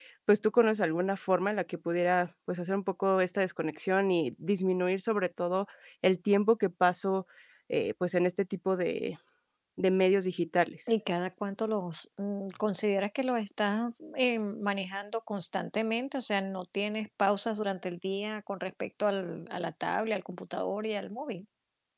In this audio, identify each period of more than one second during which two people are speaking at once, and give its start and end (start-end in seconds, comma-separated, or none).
none